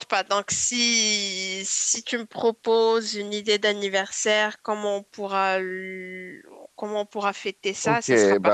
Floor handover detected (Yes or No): Yes